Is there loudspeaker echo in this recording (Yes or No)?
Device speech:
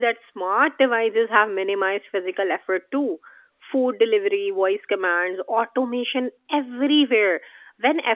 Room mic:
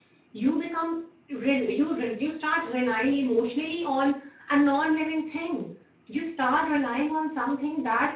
No